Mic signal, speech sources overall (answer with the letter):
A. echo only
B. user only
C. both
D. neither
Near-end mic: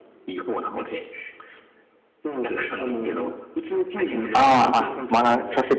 C